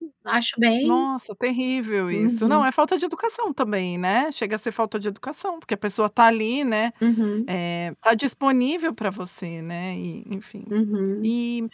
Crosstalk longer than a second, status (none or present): none